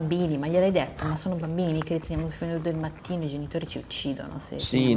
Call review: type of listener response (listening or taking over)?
taking over